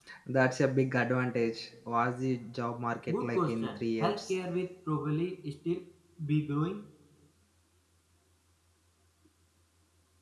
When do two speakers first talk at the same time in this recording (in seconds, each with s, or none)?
3.1 s